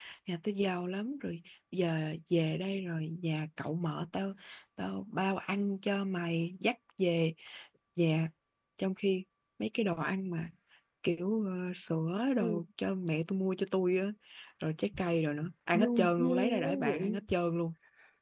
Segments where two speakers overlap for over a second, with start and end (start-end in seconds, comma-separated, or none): 15.7-17.2